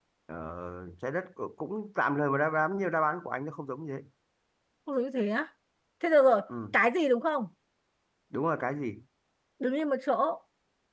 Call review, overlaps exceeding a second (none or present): none